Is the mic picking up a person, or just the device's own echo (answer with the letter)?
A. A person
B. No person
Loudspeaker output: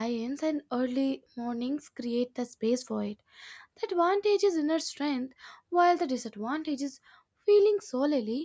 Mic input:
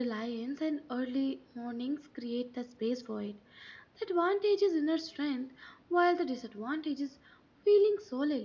B